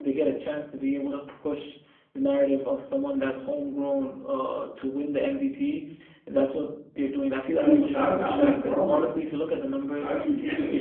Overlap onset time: 7.6 s

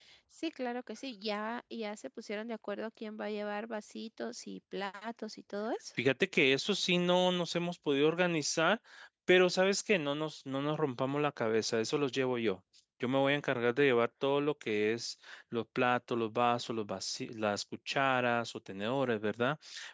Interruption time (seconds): none

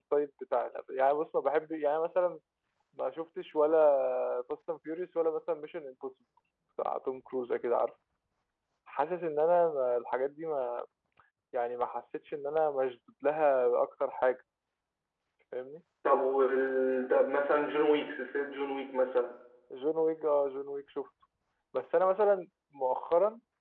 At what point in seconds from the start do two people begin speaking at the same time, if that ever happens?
none

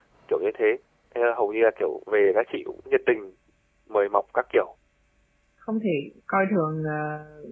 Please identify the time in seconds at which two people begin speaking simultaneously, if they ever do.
none

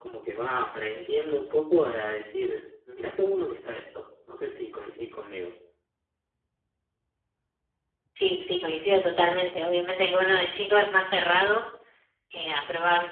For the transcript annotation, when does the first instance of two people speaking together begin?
none

